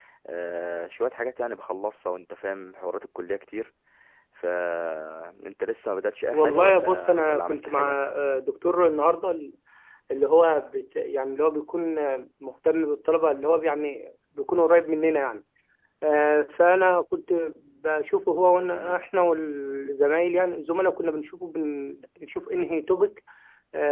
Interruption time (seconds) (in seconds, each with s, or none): 6.3 s